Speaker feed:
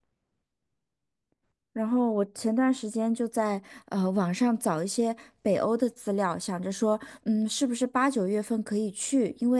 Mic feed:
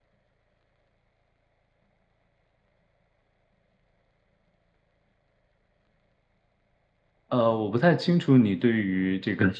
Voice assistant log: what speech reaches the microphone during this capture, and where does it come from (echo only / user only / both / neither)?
user only